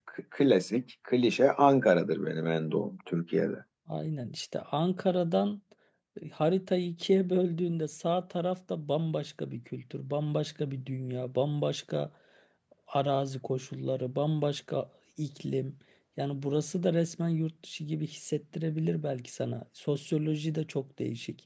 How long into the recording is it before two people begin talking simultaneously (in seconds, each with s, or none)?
none